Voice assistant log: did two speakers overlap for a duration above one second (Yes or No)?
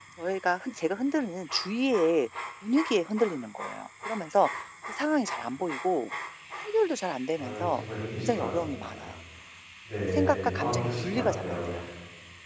Yes